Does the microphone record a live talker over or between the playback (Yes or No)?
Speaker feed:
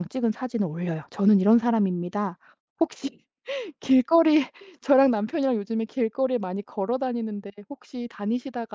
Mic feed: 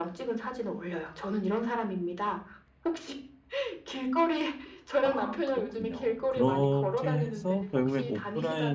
Yes